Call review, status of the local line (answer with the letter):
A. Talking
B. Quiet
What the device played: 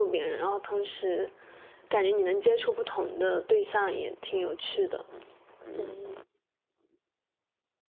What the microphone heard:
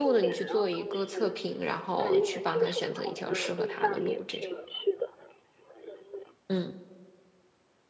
A